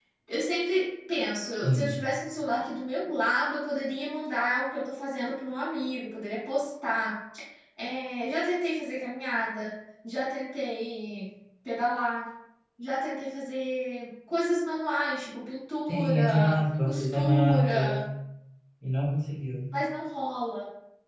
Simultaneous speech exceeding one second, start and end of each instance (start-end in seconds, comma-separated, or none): 15.9-18.1